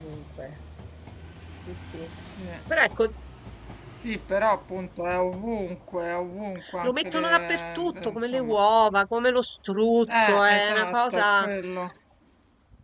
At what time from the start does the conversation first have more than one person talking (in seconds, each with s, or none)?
6.8 s